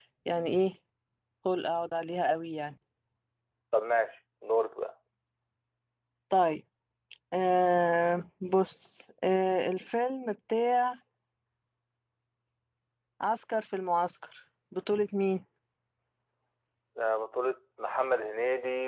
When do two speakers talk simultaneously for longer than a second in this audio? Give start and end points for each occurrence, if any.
none

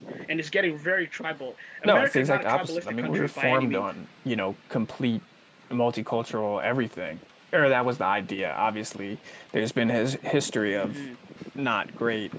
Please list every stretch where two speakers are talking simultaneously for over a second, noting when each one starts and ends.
1.8-3.8

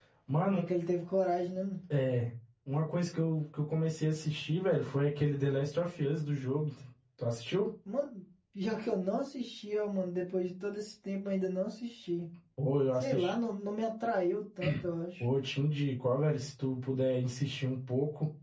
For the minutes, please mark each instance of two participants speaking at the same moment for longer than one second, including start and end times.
none

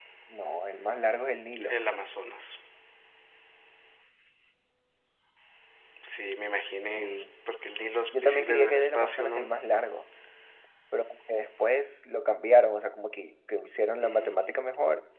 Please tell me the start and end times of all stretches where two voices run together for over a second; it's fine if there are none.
8.2-9.5

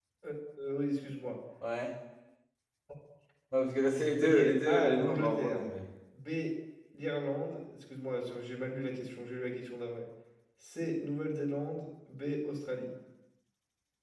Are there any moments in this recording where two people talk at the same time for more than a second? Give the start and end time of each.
4.2-5.6

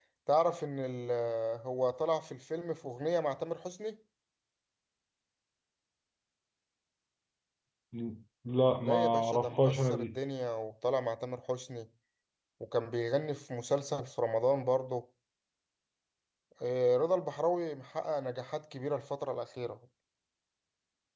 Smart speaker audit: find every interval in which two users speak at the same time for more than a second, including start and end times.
8.8-10.2

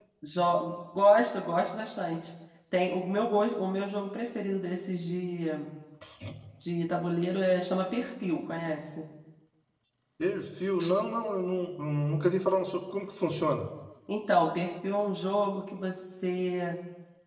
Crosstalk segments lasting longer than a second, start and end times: none

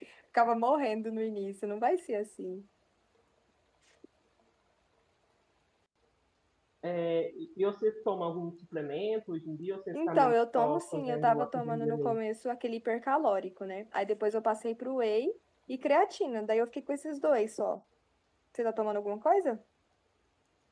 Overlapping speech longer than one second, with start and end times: 9.9-12.2

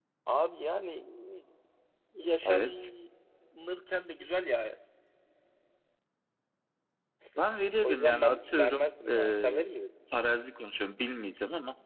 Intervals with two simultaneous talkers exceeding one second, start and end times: 7.8-9.6

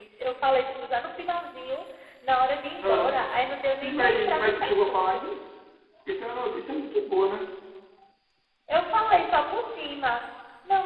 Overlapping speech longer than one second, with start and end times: 3.8-5.2

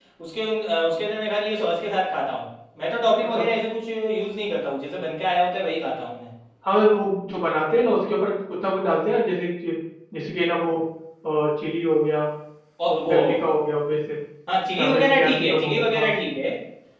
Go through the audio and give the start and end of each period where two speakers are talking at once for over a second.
14.8-16.1

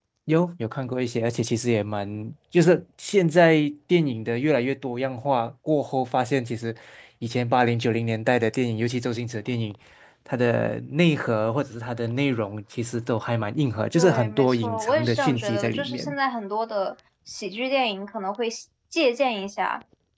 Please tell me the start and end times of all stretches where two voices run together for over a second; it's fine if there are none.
13.9-16.1

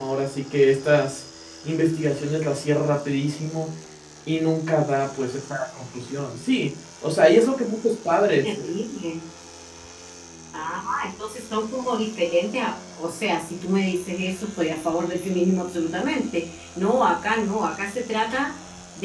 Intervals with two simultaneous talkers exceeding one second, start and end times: none

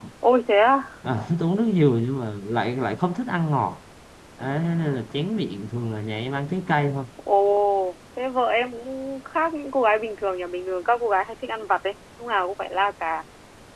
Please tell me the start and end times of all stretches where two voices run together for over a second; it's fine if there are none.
none

